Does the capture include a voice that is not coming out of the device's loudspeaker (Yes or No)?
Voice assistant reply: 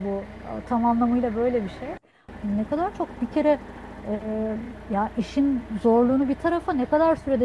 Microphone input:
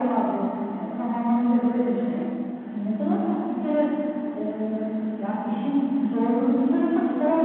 No